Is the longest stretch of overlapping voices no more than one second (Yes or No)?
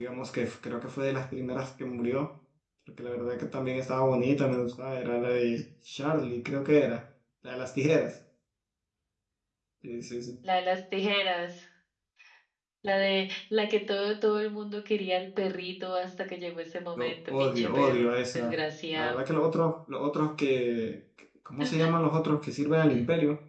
No